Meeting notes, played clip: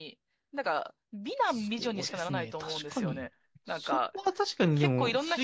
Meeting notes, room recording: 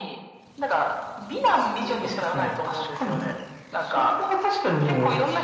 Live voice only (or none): none